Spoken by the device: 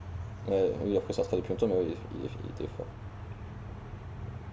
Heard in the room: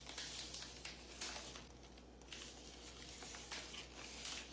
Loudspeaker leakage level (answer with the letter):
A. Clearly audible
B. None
B